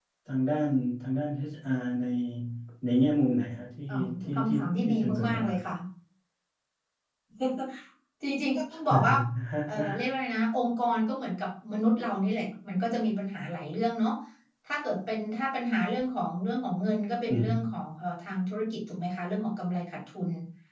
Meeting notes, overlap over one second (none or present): present